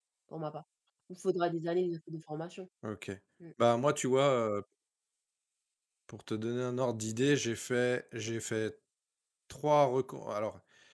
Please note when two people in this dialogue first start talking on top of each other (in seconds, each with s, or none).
none